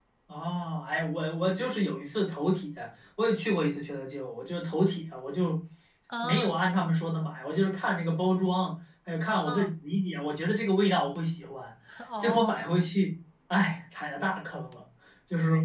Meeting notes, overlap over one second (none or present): none